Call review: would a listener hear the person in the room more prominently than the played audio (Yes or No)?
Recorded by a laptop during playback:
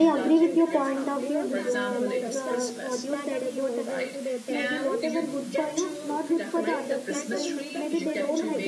Yes